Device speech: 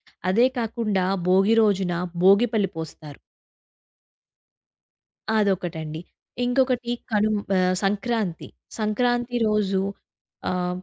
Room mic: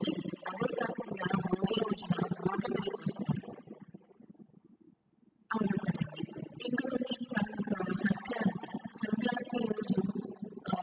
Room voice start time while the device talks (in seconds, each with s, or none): none